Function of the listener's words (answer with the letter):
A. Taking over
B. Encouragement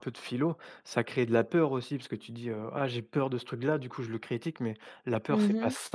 B